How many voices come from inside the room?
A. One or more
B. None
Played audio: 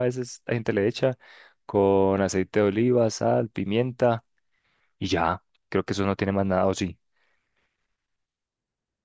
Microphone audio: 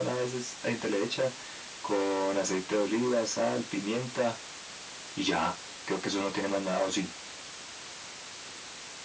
B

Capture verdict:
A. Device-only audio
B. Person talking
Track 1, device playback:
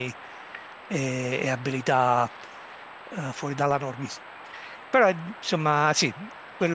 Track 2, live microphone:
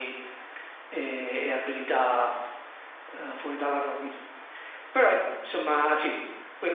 A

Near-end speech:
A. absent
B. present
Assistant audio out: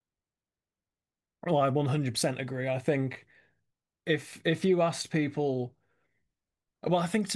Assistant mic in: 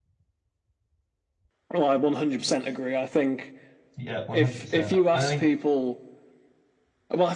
B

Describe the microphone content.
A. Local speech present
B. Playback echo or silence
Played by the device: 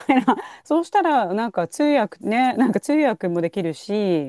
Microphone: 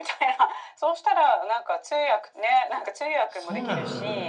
A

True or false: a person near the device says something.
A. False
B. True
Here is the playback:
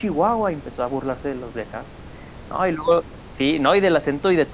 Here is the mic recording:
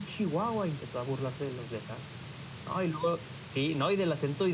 A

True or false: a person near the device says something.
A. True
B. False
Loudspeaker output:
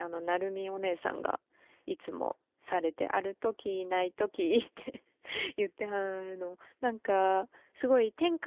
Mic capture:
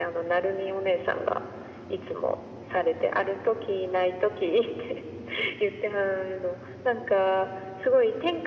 B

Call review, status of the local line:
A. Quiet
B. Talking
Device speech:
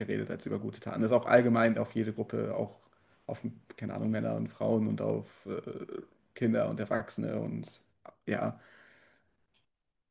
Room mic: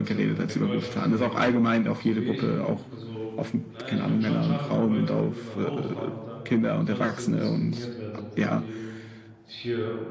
B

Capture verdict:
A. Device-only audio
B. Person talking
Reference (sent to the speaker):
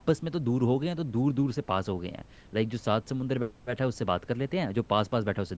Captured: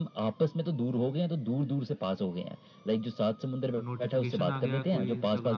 B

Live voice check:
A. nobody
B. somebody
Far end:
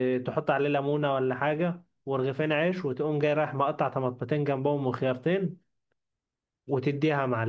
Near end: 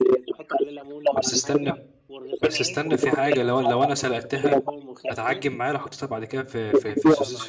B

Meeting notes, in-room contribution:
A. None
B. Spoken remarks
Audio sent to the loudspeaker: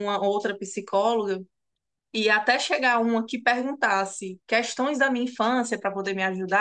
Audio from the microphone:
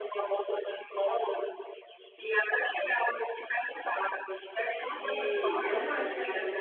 B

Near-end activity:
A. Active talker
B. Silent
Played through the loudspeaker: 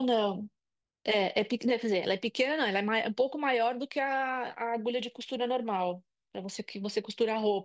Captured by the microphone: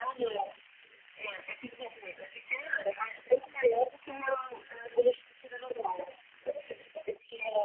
B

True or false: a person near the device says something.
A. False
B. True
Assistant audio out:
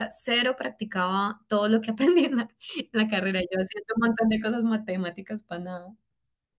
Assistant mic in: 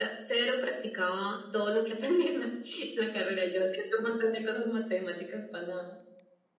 A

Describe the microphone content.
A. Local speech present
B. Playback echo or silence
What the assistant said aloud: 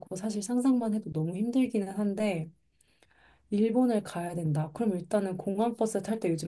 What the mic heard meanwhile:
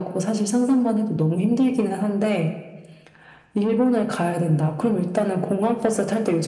B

